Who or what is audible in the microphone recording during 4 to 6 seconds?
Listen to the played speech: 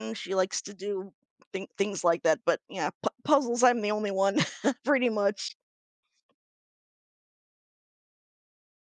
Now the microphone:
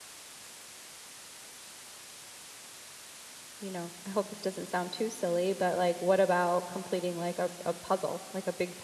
user only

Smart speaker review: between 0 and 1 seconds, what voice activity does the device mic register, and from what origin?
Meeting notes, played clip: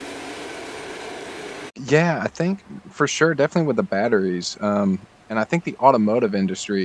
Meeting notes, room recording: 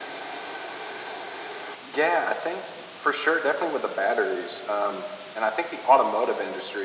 neither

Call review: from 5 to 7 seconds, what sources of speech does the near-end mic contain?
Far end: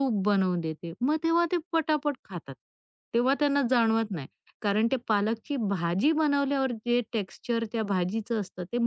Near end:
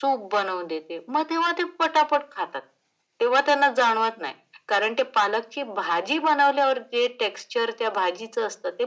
echo only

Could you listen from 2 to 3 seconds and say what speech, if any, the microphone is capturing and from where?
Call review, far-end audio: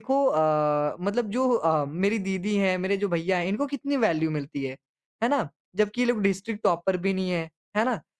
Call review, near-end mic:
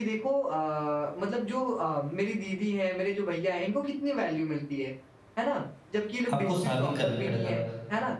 echo only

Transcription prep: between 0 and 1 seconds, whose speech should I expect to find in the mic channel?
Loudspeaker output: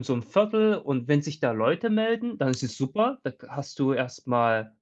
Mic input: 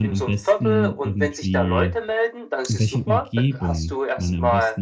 both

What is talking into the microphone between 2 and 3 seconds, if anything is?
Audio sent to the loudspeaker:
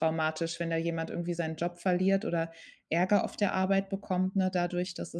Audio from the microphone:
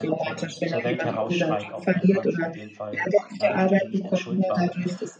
both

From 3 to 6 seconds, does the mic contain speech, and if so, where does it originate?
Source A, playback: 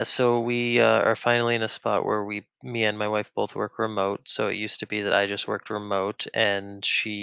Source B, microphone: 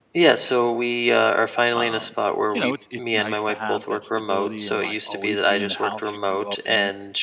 both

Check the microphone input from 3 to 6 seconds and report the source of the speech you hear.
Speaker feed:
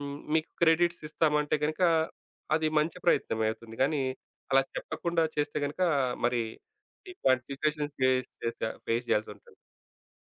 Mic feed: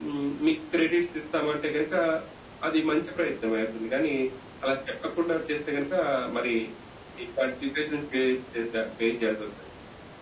echo only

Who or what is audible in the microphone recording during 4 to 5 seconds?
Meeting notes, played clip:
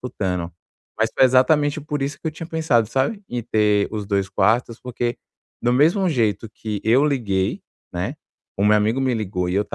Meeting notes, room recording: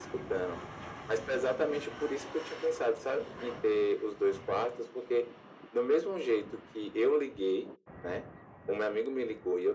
echo only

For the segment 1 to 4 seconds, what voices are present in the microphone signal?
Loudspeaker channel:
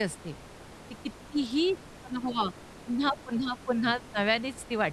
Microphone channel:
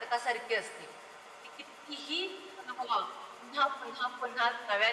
echo only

